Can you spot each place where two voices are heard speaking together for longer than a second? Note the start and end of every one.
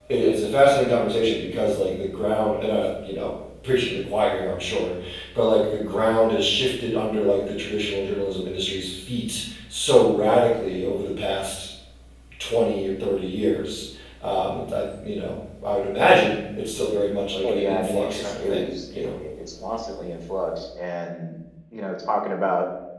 17.4-19.1

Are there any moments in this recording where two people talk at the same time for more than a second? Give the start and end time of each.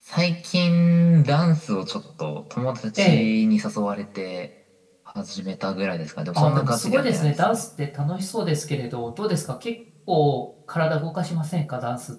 6.3-7.6

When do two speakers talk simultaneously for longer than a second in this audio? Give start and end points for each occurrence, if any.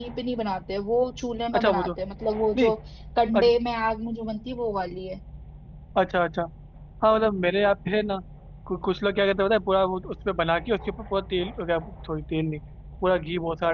none

